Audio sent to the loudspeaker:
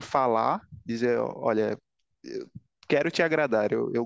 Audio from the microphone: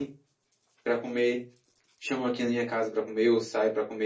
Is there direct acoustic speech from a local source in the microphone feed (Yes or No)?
Yes